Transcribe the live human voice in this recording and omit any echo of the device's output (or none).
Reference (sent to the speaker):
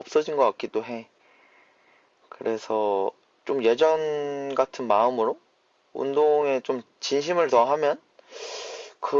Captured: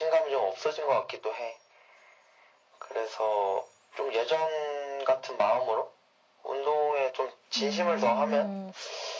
음,